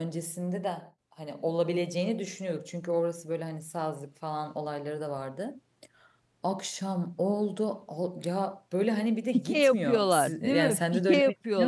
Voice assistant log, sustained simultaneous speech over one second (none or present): present